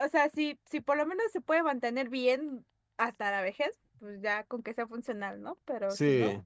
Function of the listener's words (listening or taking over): taking over